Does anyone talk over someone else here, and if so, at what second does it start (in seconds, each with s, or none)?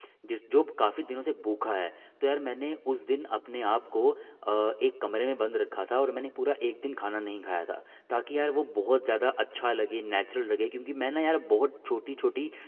none